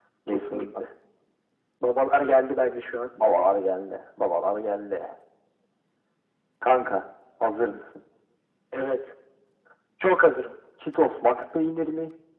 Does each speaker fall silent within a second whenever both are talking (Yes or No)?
Yes